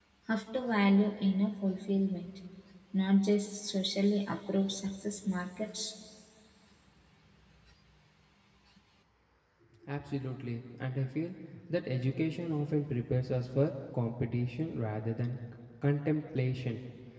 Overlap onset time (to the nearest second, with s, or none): none